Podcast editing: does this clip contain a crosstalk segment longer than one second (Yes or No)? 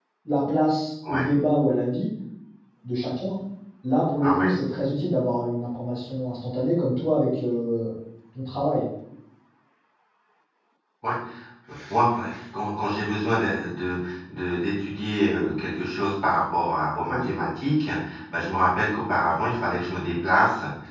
No